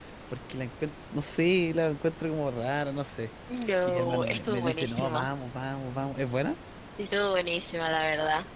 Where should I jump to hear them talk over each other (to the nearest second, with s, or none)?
4 s